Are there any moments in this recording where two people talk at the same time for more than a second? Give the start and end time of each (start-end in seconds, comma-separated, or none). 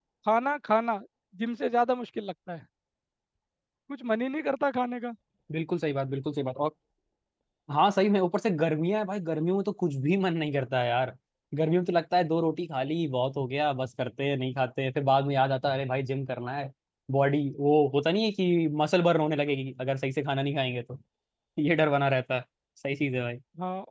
none